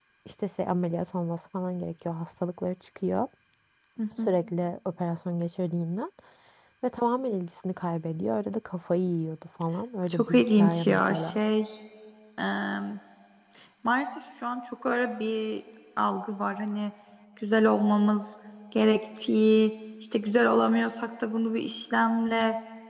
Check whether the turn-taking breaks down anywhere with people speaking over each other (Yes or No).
Yes